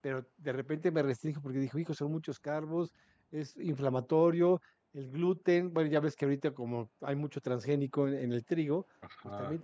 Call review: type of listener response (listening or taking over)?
listening